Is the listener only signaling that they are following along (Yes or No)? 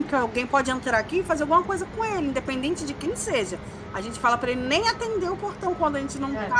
Yes